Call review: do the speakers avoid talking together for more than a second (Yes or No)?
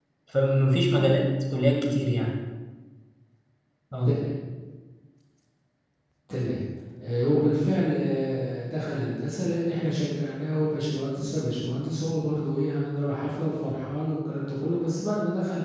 Yes